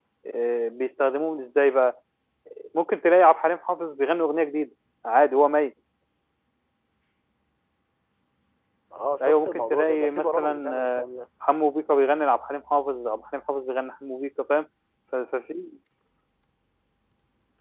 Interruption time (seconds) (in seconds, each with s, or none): 9.2 s